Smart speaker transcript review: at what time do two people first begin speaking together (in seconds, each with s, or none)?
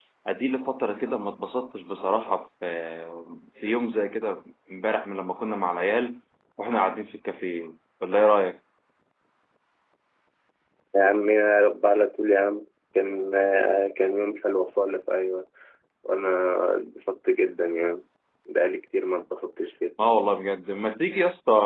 none